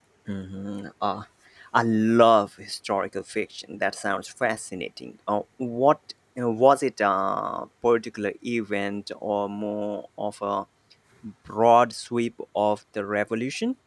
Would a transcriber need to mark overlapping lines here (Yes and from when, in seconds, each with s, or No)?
No